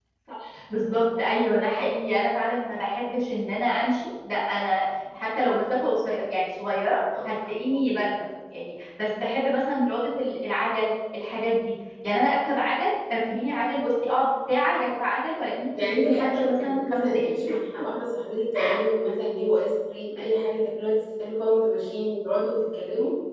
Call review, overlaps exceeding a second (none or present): present